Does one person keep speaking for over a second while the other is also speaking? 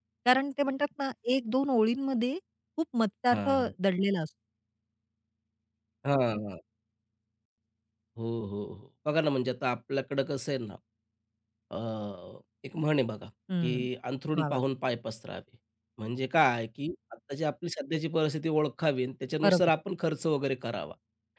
No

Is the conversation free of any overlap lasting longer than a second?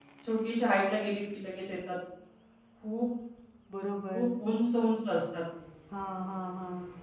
Yes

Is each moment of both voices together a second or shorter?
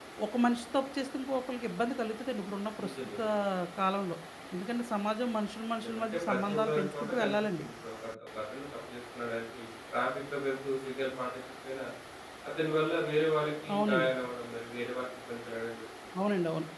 No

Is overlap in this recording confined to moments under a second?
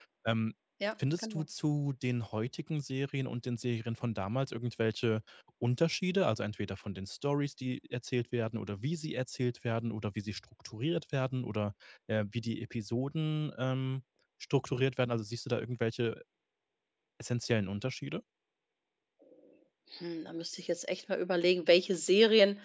Yes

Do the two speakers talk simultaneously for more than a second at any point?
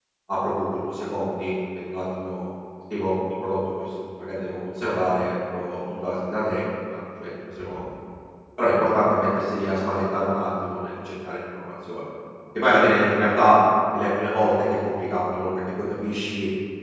No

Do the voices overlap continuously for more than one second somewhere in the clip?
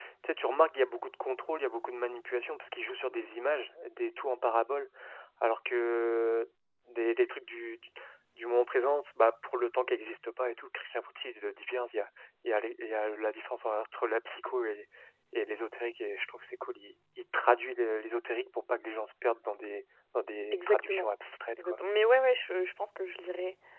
No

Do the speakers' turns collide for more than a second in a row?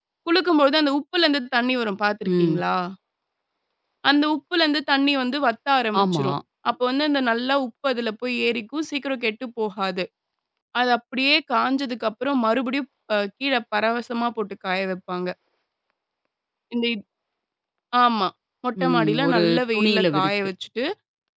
Yes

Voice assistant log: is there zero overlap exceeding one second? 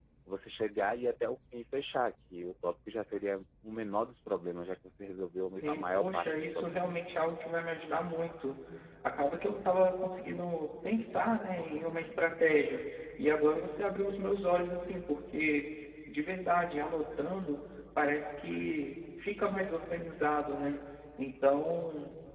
No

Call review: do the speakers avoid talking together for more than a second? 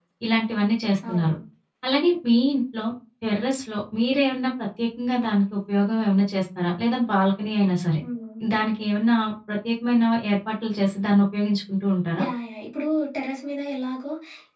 Yes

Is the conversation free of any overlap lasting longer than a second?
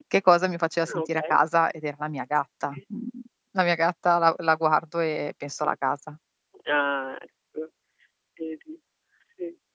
Yes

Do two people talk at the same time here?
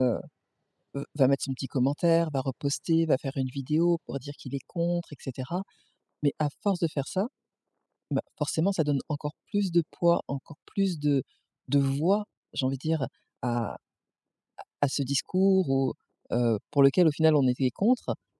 No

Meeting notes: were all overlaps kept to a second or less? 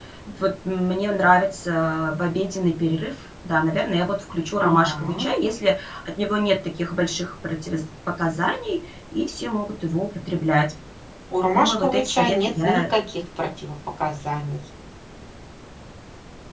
No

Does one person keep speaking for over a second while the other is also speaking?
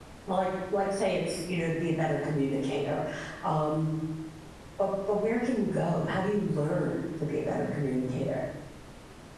No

